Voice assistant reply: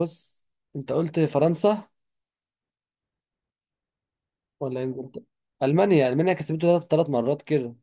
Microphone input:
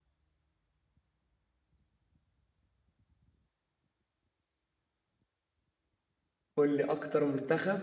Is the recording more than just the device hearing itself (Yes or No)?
Yes